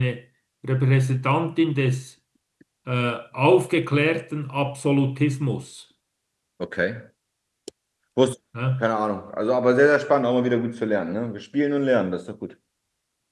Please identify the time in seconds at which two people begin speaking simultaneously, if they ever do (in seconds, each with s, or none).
none